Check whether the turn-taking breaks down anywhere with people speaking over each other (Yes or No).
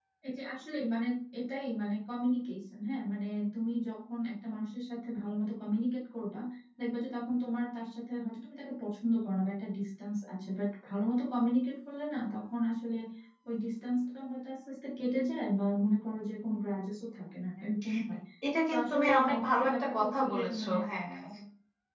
Yes